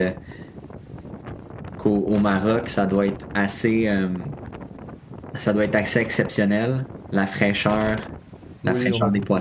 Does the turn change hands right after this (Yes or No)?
Yes